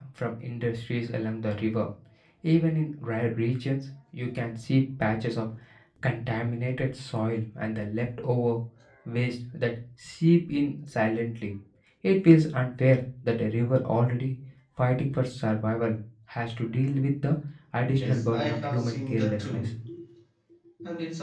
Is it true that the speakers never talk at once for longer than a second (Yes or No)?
No